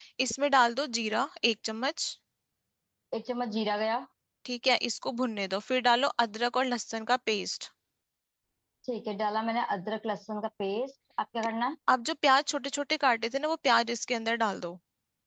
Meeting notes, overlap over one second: none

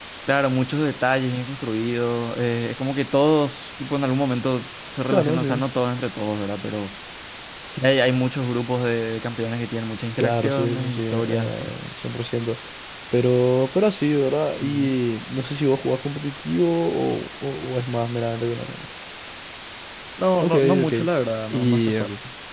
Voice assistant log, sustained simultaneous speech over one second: present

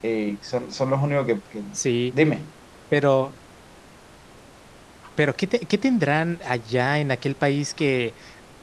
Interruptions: none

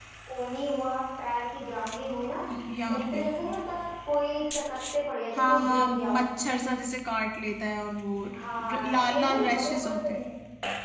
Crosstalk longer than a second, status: present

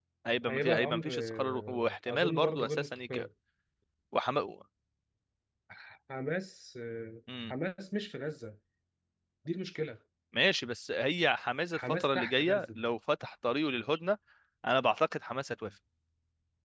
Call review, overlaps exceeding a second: present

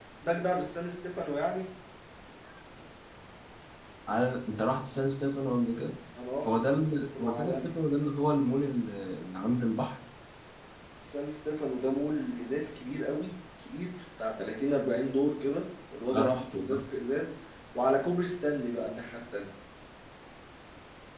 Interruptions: present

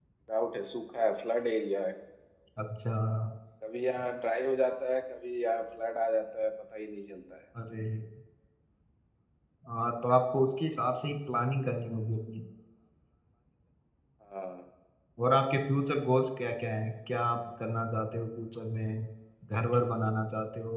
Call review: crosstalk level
none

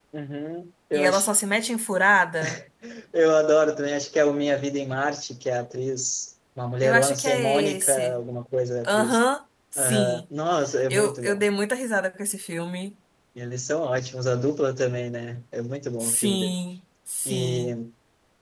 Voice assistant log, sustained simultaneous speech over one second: present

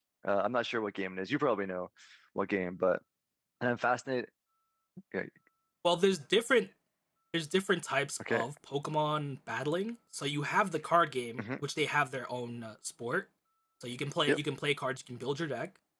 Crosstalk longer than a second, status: none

